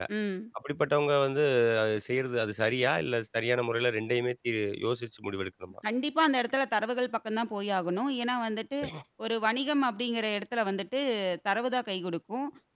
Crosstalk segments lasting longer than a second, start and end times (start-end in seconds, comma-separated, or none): none